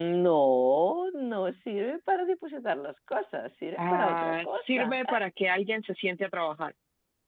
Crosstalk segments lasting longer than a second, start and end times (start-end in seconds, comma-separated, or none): 3.8-5.2